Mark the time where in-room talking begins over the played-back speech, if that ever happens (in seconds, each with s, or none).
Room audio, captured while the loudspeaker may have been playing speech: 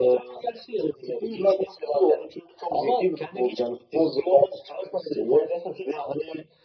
none